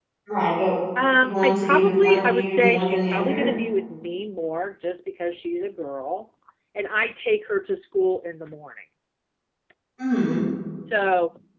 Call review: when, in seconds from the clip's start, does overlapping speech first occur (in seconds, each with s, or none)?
1.2 s